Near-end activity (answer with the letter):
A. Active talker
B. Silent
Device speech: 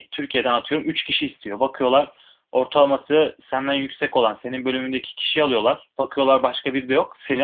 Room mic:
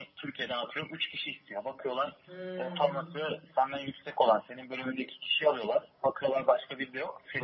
A